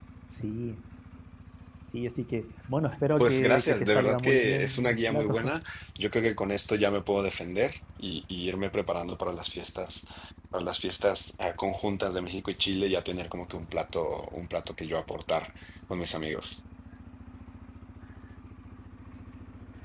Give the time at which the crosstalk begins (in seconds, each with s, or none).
3.2 s